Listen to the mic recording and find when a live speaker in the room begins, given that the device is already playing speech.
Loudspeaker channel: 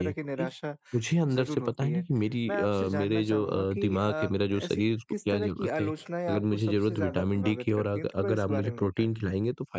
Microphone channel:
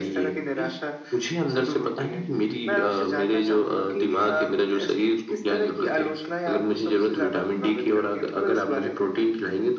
none

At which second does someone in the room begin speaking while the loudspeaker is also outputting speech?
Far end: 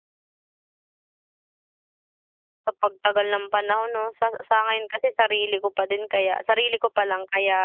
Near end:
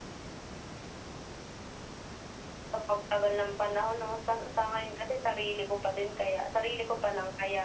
none

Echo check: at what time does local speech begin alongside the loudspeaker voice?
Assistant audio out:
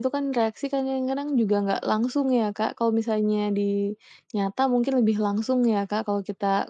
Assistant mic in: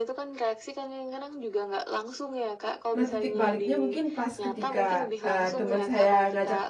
2.9 s

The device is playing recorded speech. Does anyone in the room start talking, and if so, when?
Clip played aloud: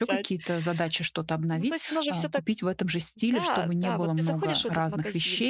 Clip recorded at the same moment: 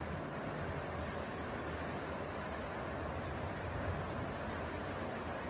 none

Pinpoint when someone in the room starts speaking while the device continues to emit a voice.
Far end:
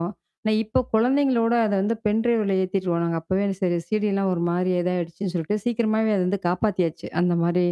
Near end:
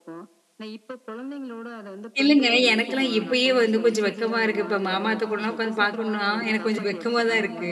2.2 s

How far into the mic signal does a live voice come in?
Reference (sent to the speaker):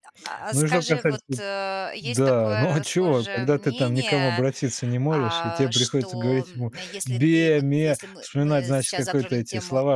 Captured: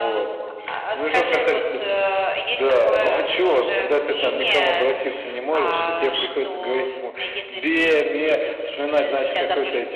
none

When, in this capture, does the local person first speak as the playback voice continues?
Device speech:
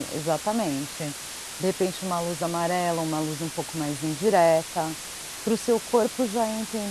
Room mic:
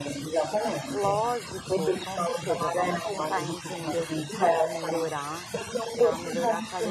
0.9 s

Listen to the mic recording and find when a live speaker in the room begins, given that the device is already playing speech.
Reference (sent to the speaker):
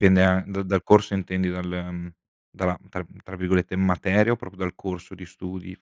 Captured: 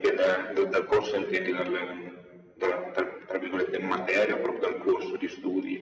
none

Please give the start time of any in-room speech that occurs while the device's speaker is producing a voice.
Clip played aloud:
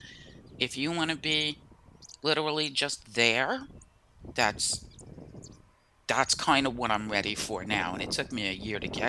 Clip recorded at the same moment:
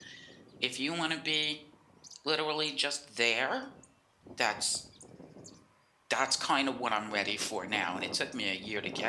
none

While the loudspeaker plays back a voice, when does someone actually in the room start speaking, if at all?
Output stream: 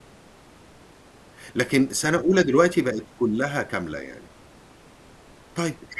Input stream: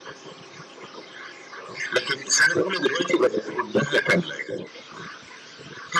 none

